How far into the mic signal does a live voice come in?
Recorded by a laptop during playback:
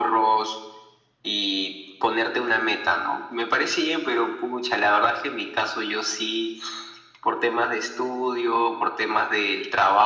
none

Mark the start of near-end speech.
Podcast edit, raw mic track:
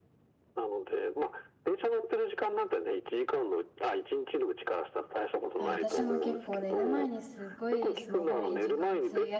5.5 s

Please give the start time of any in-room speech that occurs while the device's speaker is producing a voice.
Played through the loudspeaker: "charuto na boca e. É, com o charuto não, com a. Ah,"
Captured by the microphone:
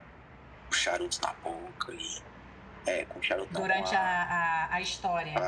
3.5 s

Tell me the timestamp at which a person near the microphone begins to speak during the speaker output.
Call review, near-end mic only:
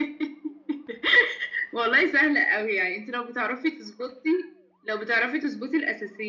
none

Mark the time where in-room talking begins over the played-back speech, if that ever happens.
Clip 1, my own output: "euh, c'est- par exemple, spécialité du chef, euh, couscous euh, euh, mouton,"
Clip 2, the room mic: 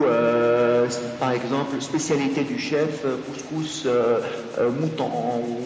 none

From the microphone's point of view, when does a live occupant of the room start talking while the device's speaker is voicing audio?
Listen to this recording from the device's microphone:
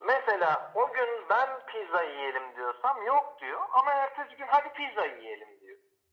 none

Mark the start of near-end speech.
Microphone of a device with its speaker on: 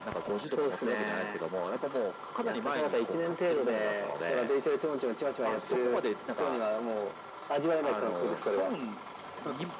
none

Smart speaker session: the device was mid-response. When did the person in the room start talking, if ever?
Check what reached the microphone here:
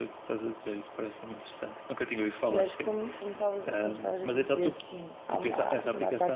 2.5 s

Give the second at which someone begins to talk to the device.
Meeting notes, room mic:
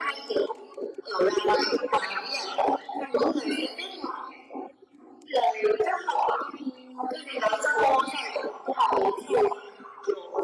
none

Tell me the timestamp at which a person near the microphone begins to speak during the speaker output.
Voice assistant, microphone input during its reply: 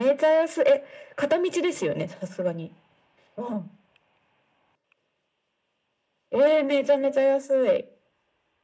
none

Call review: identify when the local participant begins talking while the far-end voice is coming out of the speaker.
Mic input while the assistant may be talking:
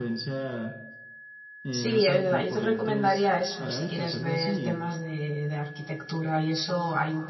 1.7 s

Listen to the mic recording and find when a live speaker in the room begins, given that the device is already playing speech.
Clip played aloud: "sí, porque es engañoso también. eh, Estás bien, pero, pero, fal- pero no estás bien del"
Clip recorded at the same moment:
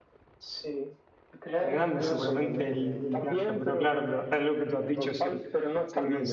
1.6 s

